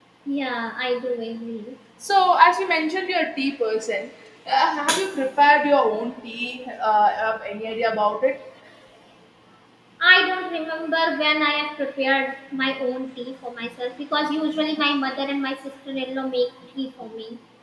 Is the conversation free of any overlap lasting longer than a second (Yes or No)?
Yes